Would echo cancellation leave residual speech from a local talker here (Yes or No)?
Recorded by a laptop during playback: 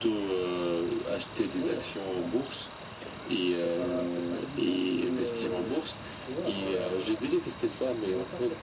No